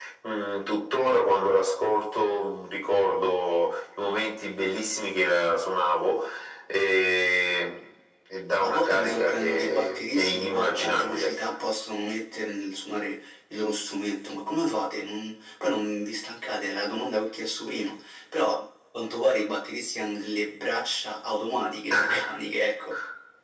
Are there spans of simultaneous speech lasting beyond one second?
Yes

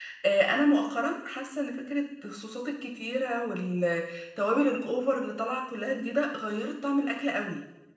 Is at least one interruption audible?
No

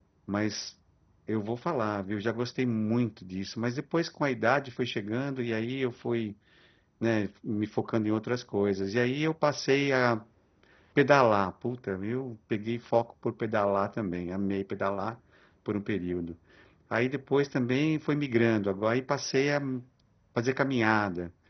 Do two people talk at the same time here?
No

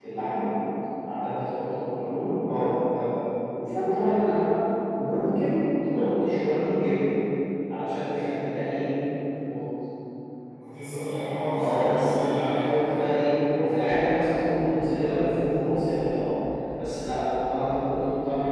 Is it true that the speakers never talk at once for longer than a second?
No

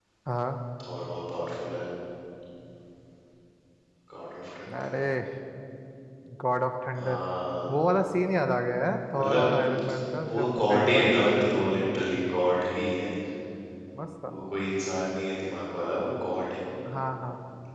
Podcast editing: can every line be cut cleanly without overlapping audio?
No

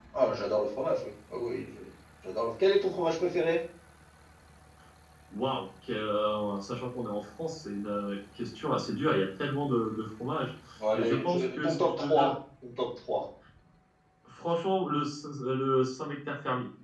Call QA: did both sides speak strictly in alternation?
No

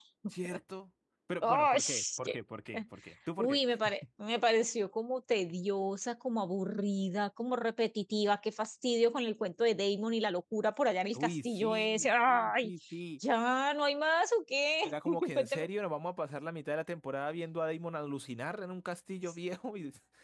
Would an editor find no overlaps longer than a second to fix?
No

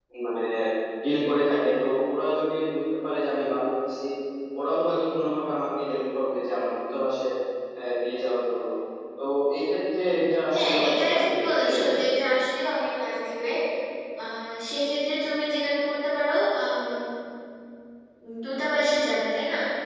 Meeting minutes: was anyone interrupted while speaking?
Yes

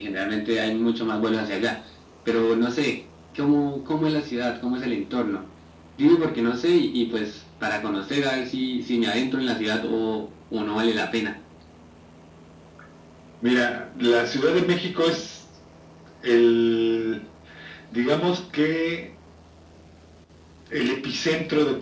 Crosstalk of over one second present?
No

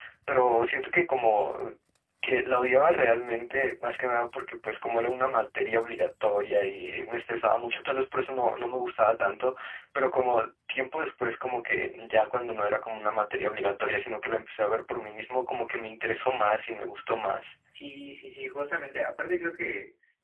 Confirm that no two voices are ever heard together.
Yes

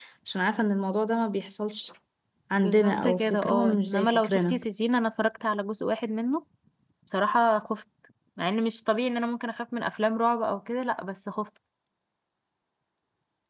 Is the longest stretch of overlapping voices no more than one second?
No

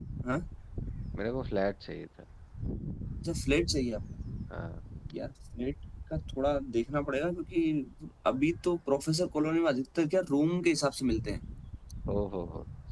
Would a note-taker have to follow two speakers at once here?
No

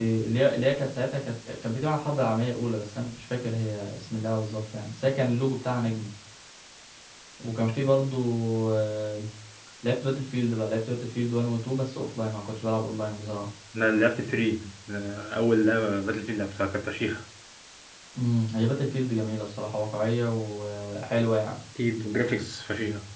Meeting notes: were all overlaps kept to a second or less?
Yes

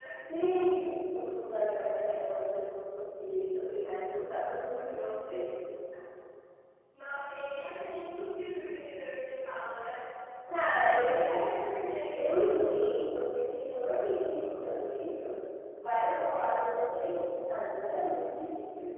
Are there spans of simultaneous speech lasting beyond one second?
No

